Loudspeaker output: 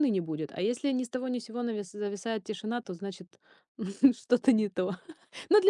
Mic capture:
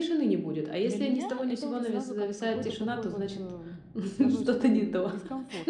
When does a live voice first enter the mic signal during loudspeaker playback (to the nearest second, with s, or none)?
1 s